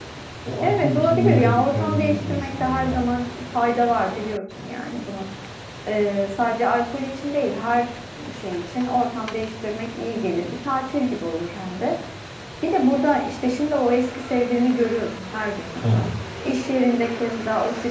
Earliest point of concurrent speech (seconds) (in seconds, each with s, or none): 0.6 s